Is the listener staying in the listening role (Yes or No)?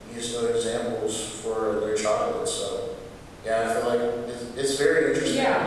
No